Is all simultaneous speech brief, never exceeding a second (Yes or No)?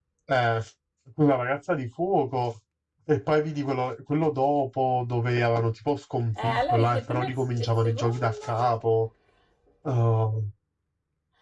No